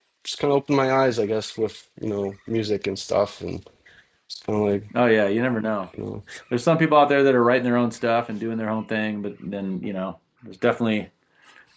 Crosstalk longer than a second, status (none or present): none